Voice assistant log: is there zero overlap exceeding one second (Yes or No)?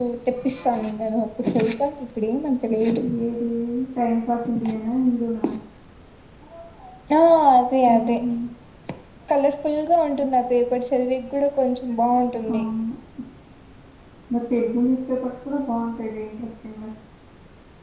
Yes